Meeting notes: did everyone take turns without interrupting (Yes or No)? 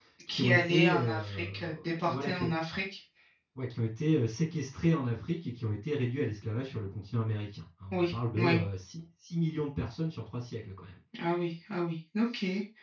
No